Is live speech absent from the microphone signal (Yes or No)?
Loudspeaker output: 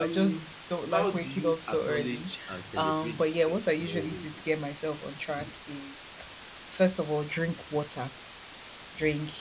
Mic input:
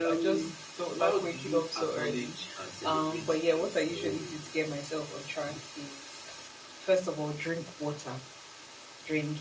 Yes